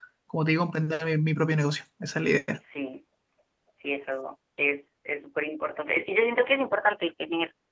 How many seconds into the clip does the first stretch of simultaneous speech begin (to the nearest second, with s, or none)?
none